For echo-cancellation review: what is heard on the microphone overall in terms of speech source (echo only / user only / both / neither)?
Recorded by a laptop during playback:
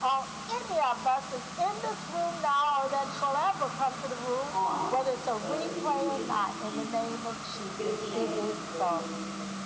both